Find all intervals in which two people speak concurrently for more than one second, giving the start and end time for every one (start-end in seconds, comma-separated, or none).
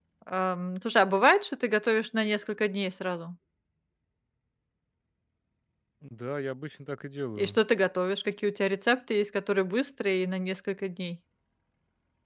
none